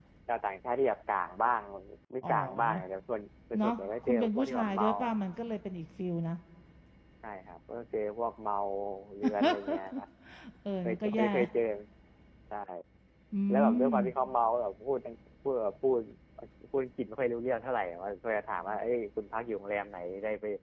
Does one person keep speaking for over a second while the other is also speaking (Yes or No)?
Yes